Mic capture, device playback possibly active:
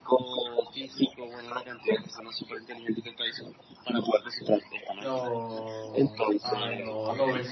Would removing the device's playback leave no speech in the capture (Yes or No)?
No